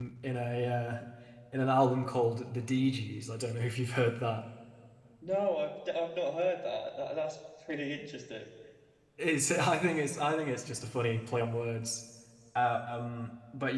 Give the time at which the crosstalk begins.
none

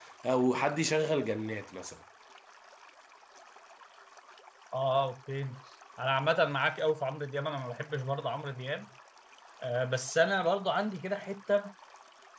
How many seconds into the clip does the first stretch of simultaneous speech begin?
none

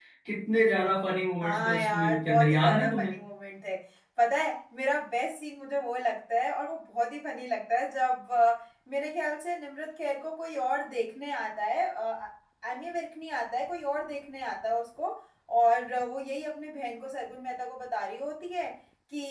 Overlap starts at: 1.4 s

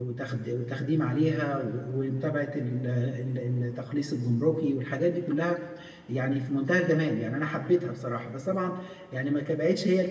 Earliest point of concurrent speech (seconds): none

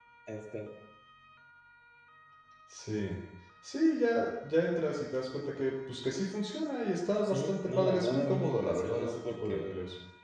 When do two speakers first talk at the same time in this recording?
7.2 s

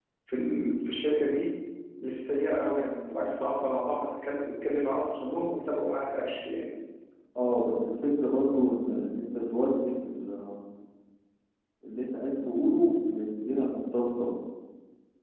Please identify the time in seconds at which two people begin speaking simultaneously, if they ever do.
none

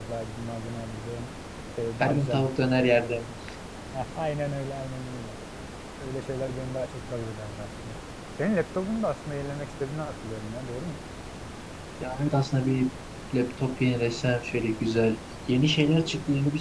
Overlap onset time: 2.0 s

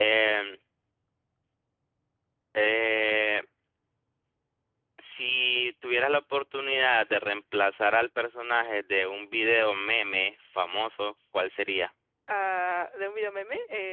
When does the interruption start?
none

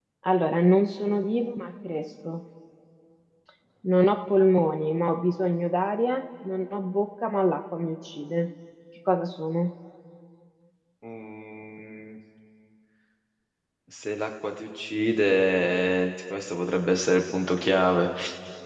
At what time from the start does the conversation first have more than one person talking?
none

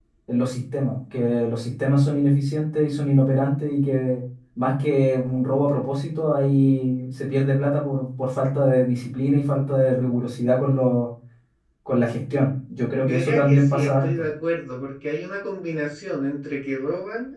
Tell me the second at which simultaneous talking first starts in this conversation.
13.0 s

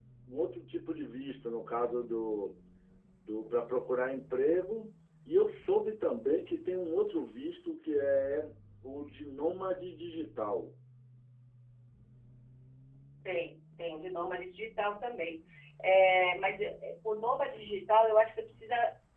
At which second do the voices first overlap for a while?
none

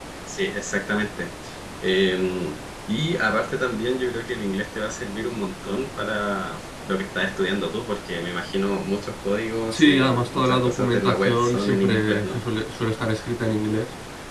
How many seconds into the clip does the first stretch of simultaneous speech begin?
9.7 s

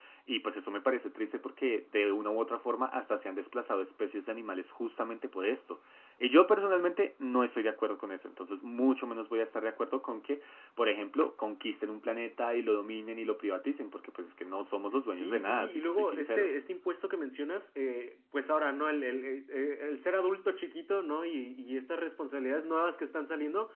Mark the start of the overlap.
15.1 s

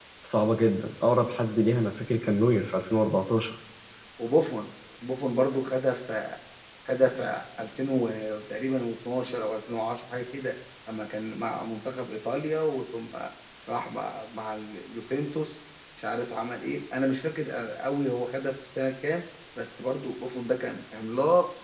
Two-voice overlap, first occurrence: none

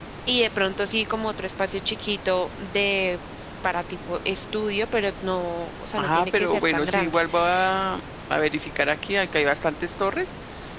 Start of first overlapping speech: 6.0 s

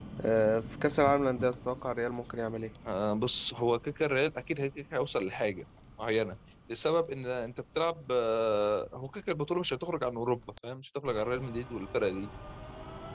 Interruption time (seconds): none

